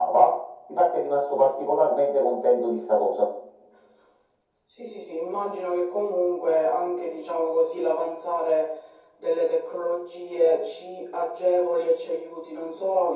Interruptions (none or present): none